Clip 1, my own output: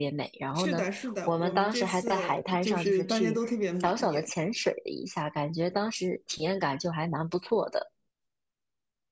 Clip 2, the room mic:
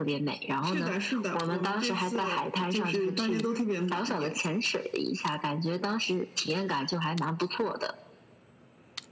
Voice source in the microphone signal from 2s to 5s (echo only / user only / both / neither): echo only